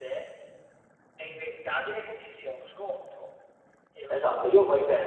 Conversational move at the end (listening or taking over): taking over